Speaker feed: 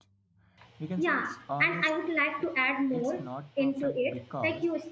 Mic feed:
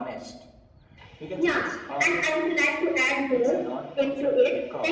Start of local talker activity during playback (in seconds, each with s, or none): none